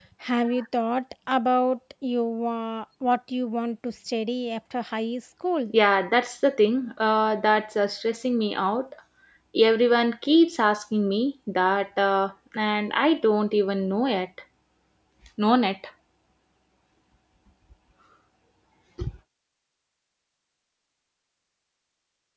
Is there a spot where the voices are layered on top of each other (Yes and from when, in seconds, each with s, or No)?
No